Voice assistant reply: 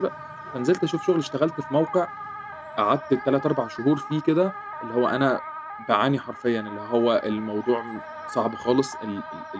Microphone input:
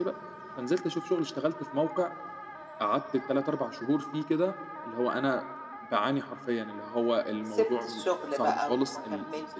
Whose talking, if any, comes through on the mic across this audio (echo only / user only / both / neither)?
both